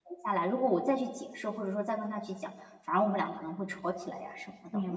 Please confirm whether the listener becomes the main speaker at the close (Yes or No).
Yes